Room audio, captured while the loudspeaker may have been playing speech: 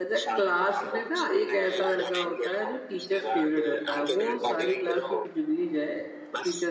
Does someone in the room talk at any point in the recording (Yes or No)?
Yes